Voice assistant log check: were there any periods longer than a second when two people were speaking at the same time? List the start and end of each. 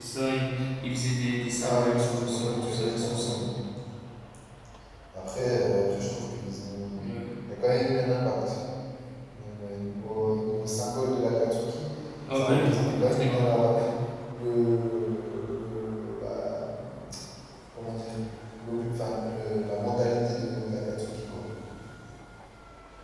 1.6-3.4, 12.3-13.6

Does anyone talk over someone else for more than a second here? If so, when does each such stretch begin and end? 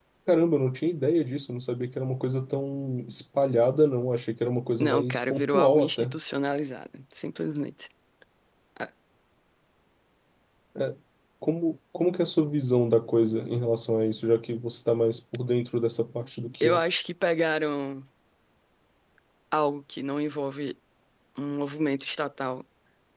4.8-6.1

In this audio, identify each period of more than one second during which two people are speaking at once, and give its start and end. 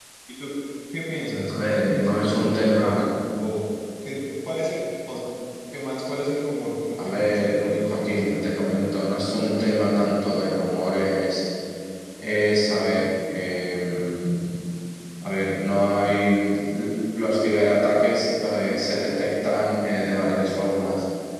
1.5-3.1, 7.0-8.4

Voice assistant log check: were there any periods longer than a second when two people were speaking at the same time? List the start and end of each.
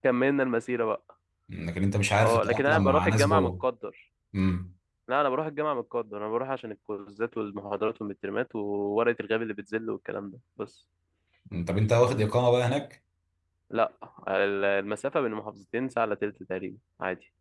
2.2-3.6

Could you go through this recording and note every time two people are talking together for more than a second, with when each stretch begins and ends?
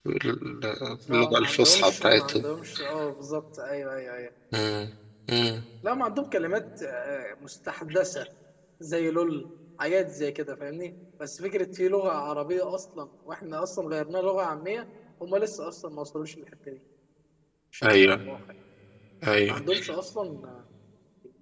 1.1-2.5

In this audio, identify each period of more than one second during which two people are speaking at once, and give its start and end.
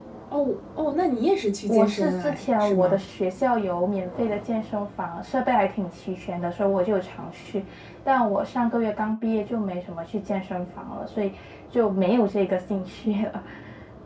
1.7-3.0

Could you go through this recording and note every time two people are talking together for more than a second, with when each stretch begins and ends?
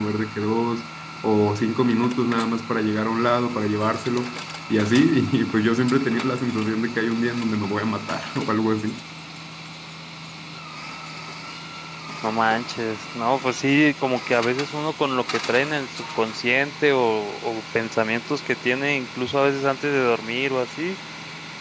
none

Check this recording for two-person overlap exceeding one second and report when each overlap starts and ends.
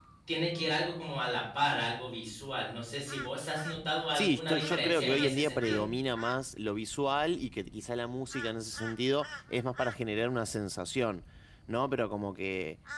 4.1-5.8

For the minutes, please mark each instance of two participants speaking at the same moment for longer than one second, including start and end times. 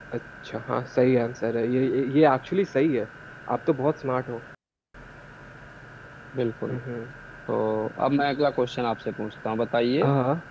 none

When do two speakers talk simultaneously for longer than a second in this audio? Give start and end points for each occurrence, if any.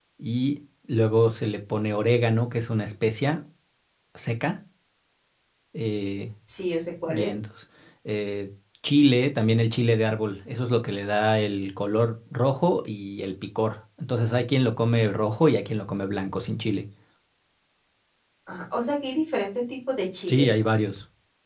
none

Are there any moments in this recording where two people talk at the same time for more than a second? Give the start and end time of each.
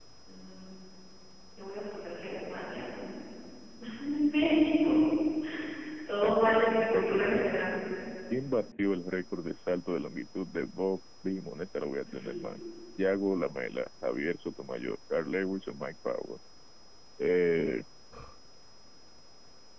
6.2-7.7

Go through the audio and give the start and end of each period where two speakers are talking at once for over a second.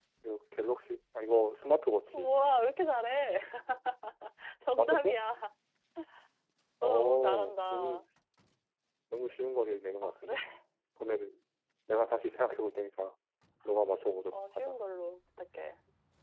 6.8-8.0

